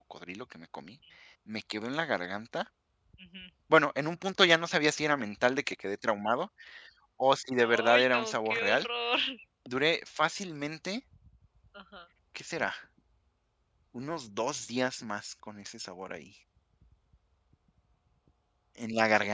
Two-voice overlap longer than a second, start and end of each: 7.6-8.9

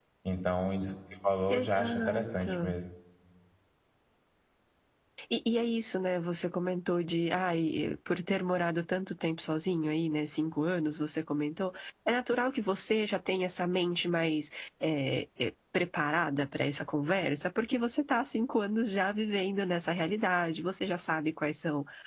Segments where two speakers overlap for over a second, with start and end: 1.5-2.7

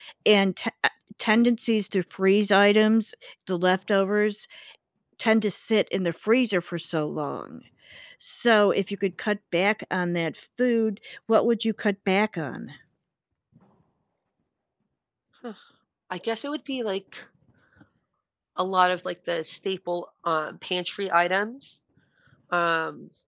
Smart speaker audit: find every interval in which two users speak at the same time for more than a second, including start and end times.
none

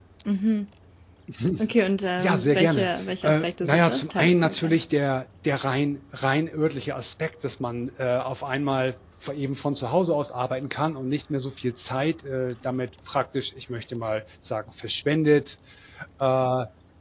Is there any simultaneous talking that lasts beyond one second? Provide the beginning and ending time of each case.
2.2-4.8

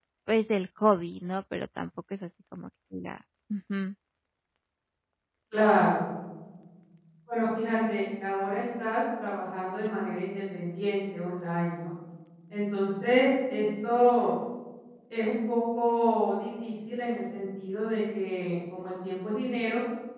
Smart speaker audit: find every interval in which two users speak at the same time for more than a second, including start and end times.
none

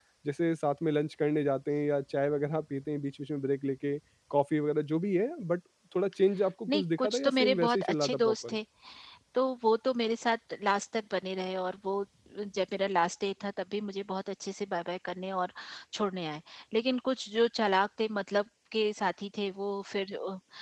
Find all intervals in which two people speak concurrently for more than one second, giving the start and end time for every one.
6.7-8.6

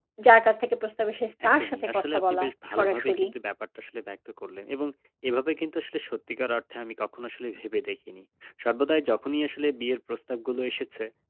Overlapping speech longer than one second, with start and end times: 1.5-3.3

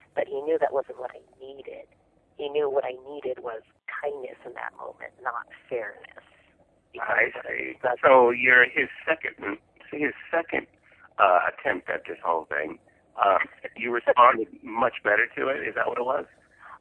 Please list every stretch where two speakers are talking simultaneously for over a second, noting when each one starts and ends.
7.0-8.3

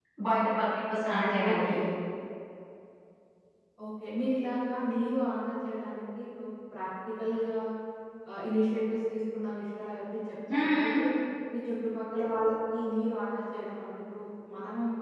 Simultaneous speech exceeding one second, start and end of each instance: none

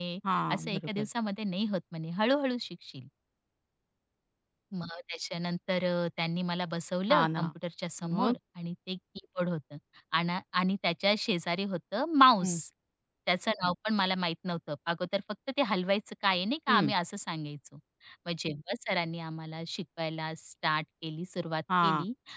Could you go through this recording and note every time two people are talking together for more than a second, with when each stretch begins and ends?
none

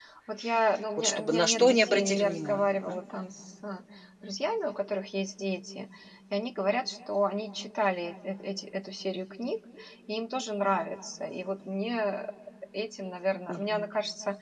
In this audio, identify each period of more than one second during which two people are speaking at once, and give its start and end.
1.0-2.9

